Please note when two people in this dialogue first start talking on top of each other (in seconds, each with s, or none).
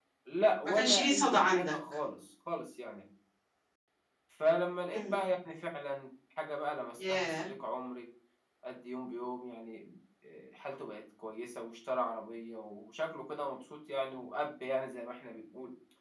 0.6 s